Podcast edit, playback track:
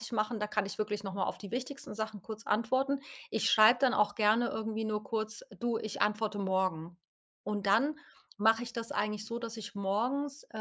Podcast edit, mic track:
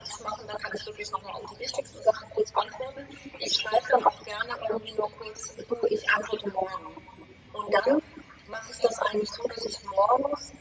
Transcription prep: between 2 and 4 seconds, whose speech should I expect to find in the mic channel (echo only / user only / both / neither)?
echo only